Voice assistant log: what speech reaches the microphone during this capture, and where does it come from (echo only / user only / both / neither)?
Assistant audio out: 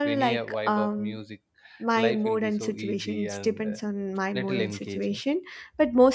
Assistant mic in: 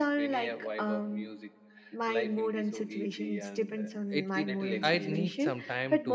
both